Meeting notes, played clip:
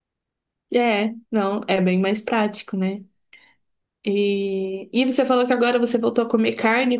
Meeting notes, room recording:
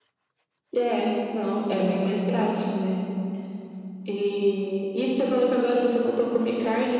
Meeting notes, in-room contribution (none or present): none